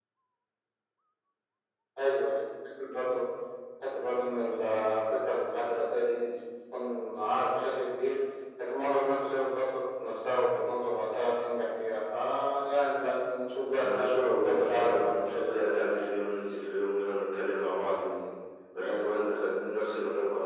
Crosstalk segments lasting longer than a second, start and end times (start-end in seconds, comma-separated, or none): 13.8-16.1